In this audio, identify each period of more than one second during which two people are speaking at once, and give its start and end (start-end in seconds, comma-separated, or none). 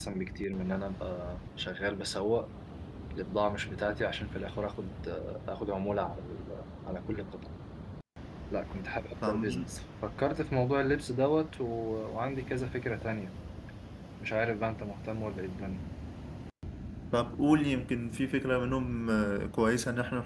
none